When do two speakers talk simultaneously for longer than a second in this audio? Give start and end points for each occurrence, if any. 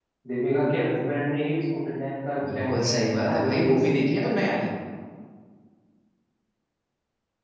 2.5-4.3

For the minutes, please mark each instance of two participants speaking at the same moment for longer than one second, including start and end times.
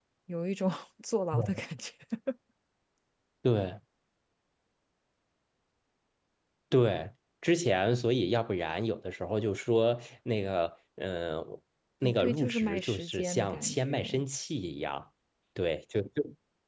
12.0-14.2

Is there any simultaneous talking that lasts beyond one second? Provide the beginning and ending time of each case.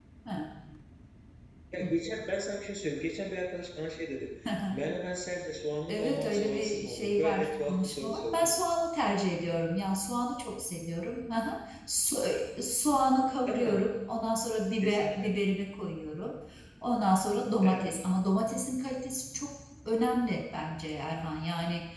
5.9-8.5

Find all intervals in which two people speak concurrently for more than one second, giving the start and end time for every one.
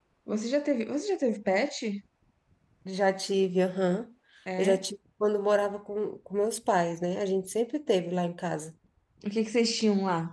none

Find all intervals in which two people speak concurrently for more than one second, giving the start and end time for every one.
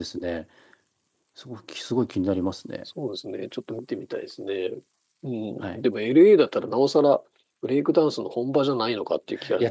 none

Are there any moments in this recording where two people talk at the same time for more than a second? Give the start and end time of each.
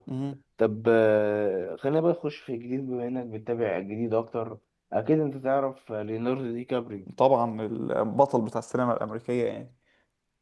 none

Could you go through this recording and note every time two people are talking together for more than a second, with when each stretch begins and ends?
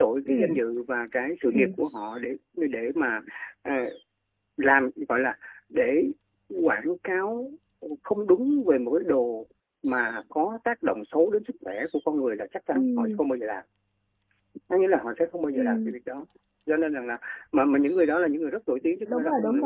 none

